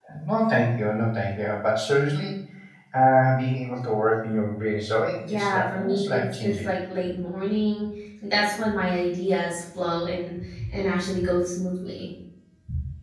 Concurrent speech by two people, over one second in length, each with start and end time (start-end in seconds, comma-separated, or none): 5.3-6.7